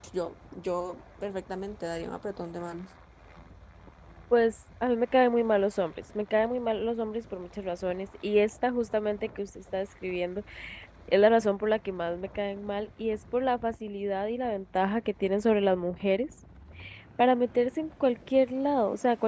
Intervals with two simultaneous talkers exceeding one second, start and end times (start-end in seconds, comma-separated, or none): none